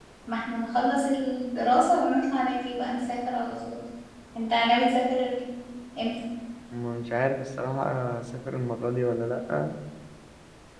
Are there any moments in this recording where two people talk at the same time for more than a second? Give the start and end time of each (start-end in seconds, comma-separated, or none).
none